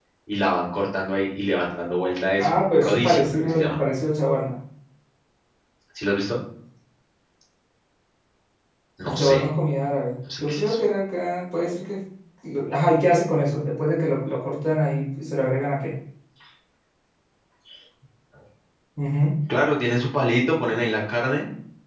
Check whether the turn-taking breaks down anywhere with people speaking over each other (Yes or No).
Yes